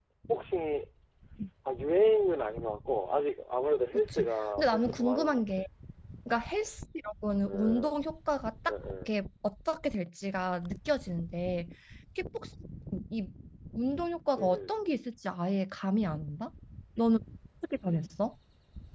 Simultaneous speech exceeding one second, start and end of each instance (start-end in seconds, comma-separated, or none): 3.9-5.4